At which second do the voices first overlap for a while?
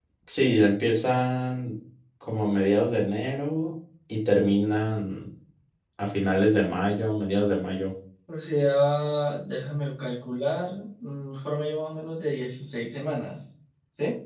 none

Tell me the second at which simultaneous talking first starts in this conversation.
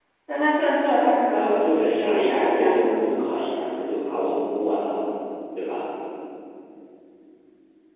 1.3 s

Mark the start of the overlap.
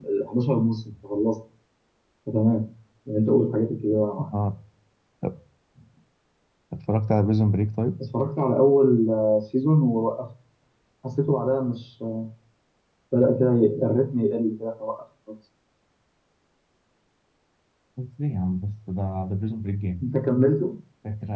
none

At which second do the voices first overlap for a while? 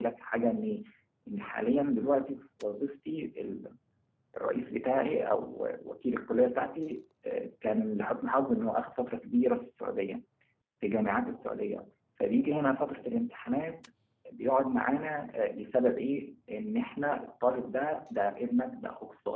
none

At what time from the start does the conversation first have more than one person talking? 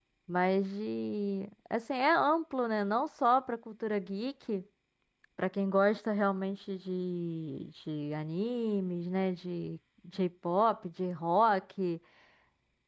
none

